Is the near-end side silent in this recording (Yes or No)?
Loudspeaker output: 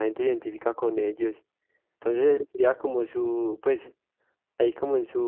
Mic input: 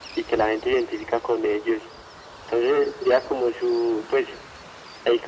Yes